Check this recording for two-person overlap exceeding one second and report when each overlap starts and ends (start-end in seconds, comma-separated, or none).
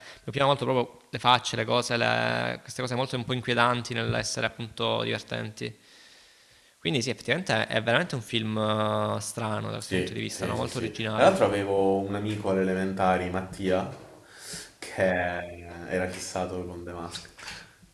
9.8-11.4